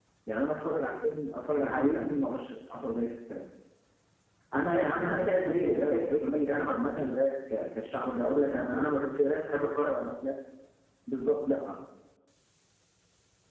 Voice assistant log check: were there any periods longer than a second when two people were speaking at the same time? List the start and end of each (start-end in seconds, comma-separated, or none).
4.6-7.2